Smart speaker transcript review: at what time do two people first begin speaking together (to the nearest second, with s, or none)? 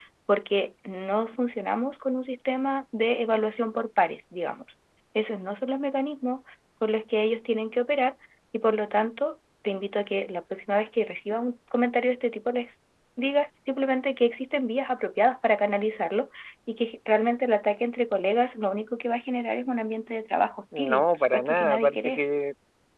21 s